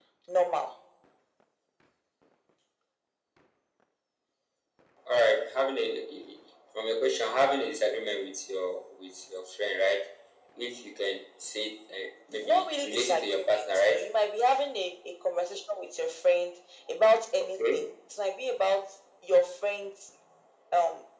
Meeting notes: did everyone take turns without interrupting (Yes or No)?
No